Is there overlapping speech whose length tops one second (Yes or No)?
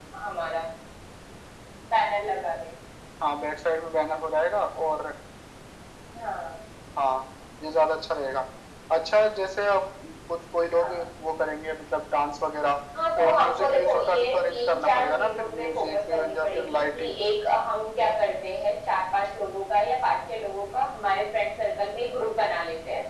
Yes